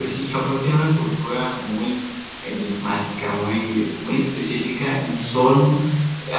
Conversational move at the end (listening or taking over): listening